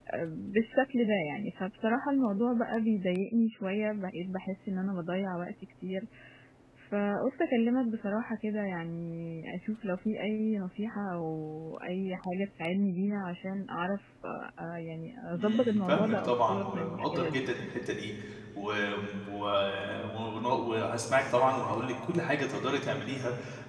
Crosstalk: present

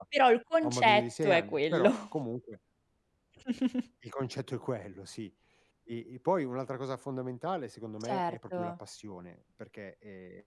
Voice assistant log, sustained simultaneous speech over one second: present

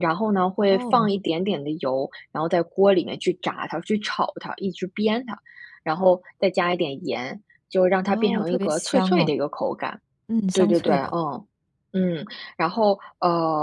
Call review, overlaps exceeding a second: present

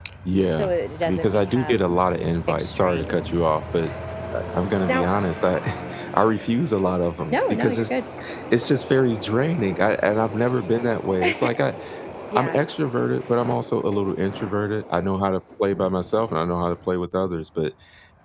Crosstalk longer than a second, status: present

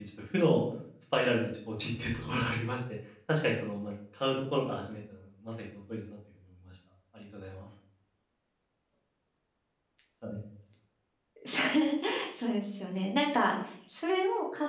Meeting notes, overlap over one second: none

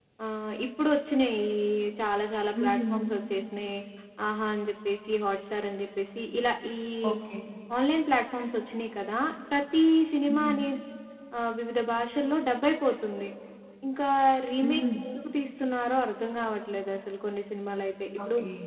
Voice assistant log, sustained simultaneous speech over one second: none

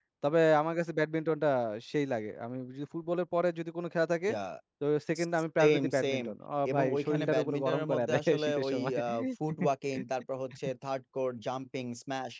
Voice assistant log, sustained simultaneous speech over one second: present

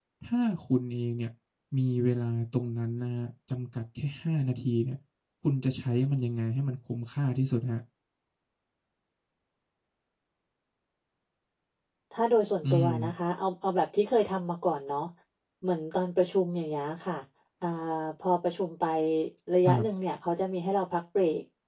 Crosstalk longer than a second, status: none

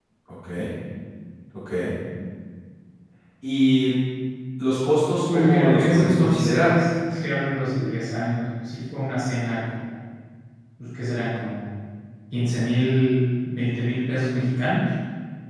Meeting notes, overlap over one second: present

